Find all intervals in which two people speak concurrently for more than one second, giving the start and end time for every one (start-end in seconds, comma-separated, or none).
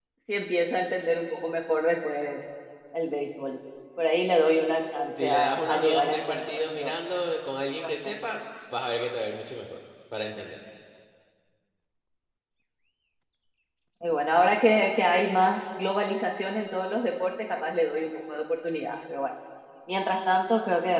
5.2-6.9